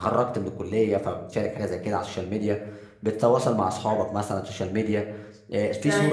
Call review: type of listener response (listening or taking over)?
listening